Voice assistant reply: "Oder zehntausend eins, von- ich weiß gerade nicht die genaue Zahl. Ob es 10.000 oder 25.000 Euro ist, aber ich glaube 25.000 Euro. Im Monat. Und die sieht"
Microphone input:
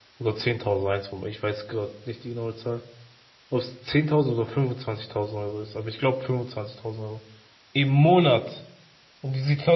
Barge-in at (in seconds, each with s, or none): none